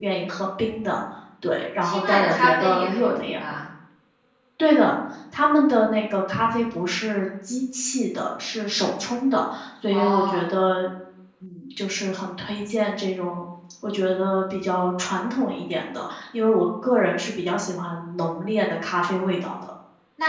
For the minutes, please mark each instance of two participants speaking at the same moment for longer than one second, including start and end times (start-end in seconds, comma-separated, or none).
1.8-3.4